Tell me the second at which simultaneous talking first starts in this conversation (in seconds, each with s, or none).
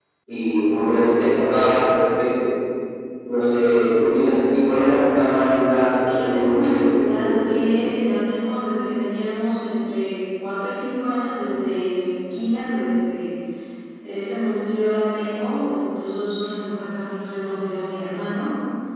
6.0 s